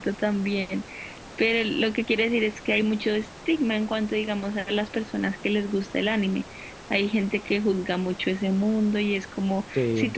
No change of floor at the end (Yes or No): Yes